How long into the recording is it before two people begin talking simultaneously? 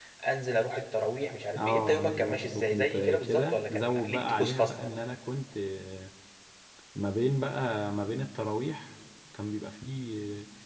2 s

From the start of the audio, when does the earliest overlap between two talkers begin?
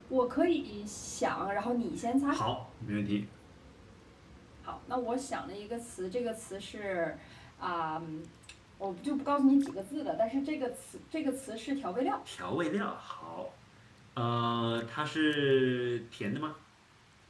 none

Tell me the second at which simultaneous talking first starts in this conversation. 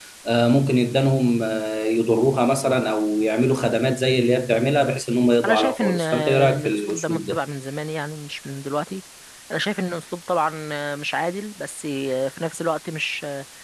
5 s

